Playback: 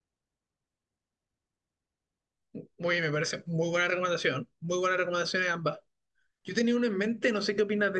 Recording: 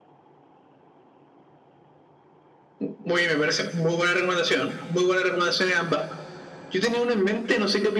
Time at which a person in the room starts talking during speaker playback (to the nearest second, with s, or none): none